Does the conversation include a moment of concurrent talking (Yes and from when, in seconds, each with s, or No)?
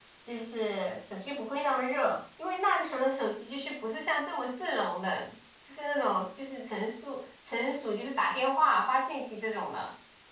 No